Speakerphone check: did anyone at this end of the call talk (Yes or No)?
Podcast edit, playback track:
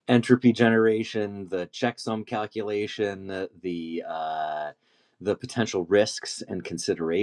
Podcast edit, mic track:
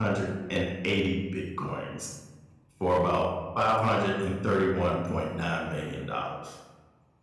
Yes